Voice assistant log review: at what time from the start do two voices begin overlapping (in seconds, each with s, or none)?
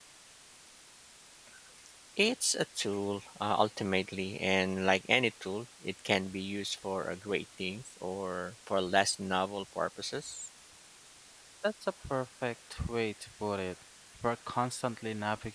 none